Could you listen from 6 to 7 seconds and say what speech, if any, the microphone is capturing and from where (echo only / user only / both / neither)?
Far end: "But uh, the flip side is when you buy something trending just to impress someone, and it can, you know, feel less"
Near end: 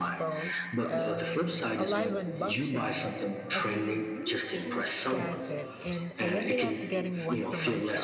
both